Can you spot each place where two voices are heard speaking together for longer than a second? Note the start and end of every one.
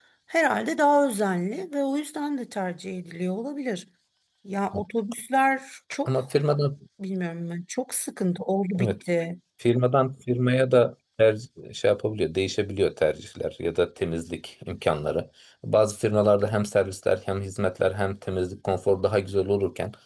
none

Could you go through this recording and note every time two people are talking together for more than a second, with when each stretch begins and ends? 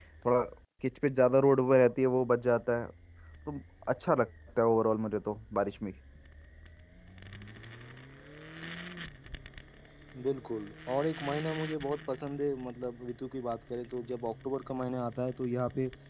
none

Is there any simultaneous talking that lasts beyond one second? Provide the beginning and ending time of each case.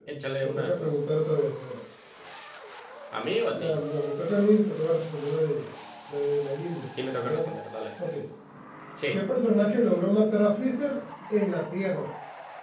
none

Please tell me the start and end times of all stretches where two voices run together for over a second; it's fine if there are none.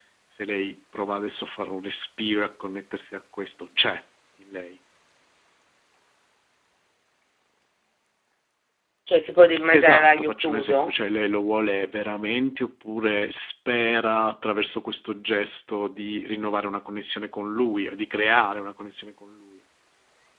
9.7-10.9

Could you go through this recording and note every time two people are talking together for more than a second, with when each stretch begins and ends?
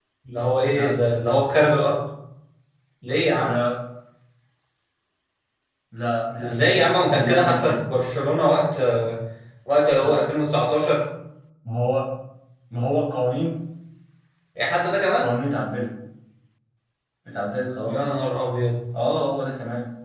6.4-7.8

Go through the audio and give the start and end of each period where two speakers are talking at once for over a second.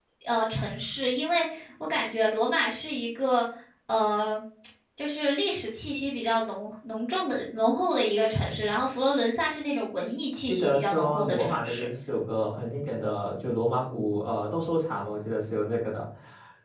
10.5-11.9

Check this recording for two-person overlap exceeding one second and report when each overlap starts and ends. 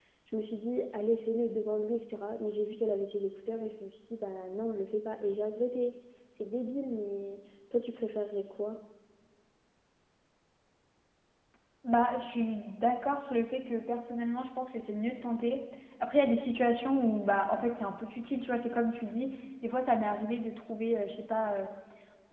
none

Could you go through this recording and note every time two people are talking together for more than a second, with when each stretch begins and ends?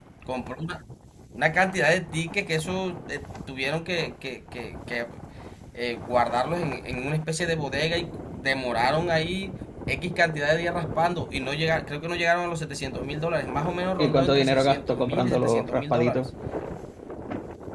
14.0-16.3

